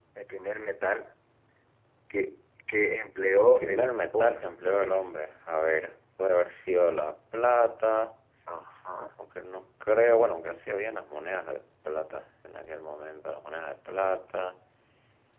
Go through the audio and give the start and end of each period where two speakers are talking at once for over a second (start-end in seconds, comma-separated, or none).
3.4-5.1